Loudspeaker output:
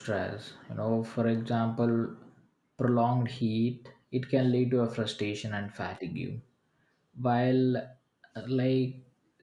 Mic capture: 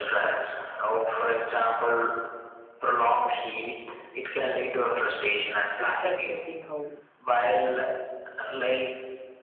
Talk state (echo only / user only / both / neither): both